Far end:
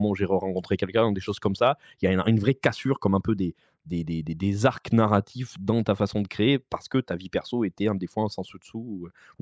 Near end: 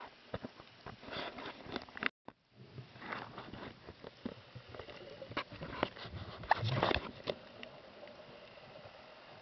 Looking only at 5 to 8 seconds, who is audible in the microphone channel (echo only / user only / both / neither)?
neither